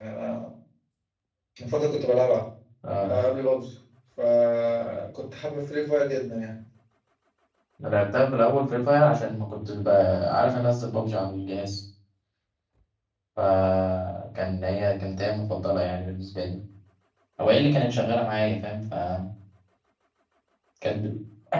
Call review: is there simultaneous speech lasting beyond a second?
No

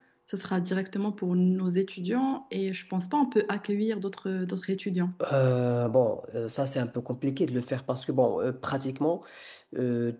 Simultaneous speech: No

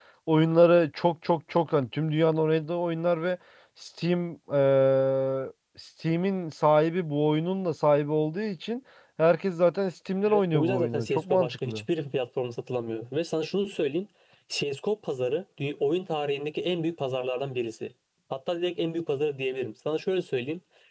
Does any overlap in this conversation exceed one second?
Yes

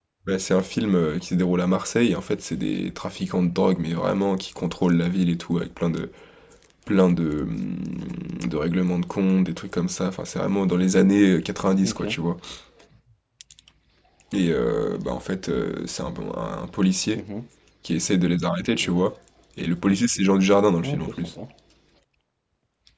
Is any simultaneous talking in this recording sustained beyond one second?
No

